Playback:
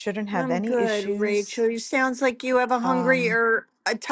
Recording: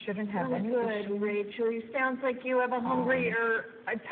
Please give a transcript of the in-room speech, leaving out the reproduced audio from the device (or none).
none